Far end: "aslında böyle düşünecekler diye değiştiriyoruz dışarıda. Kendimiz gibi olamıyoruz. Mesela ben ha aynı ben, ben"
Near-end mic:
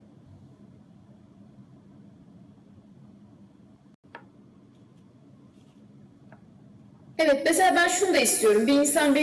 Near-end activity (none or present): present